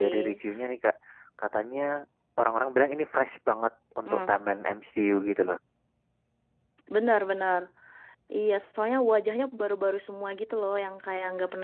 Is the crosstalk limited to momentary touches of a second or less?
Yes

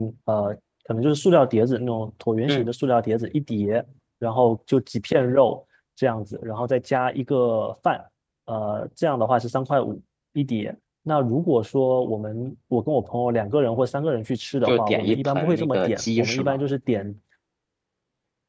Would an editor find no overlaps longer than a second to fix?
No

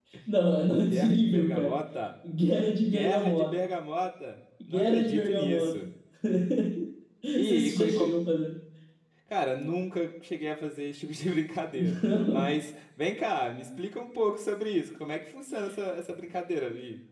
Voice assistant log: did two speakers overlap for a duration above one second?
Yes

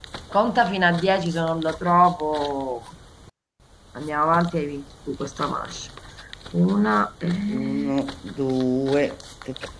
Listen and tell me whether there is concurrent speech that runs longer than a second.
No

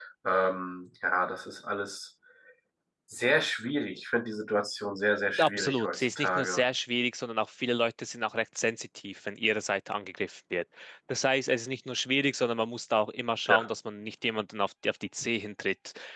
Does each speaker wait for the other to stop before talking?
No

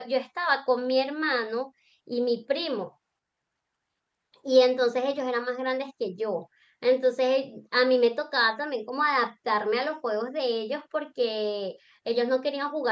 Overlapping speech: No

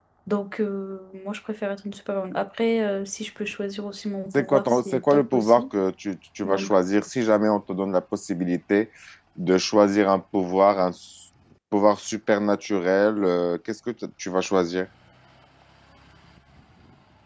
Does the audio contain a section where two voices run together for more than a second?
Yes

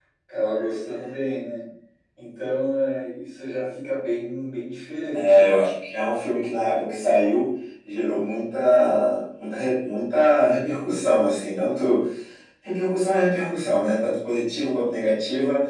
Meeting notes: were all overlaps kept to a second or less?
Yes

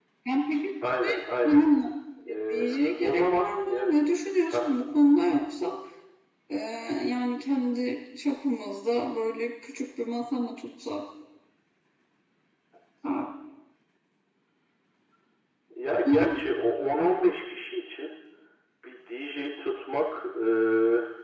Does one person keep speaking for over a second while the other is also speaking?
Yes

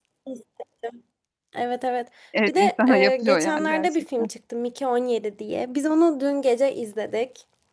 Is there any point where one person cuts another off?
Yes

